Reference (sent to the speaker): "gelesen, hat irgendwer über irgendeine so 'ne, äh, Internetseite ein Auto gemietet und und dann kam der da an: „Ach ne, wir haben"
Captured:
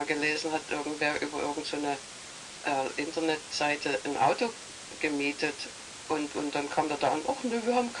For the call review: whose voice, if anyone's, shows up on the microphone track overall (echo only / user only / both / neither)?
echo only